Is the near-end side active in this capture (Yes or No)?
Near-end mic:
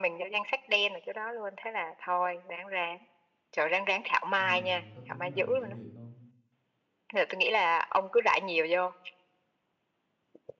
Yes